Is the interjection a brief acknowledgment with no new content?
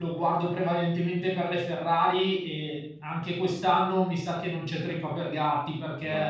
Yes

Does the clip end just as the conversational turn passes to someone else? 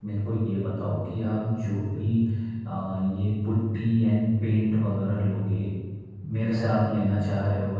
No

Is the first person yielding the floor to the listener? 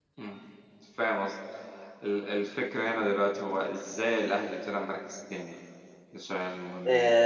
Yes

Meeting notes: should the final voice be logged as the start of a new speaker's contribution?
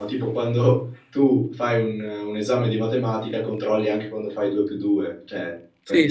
Yes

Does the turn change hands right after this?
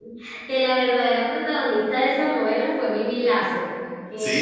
Yes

